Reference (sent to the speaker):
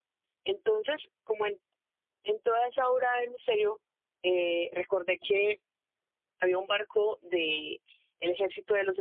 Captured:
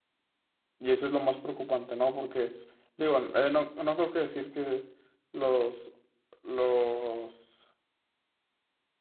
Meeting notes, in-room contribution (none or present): present